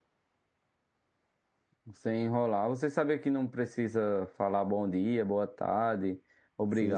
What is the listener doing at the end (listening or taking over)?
taking over